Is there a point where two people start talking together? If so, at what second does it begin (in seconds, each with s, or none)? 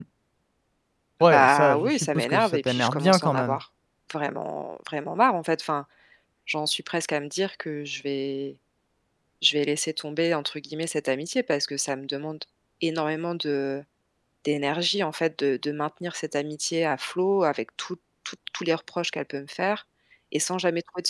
1.3 s